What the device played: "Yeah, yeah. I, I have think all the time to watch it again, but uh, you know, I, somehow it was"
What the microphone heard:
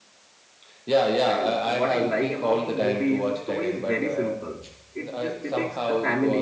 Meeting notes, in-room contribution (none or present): present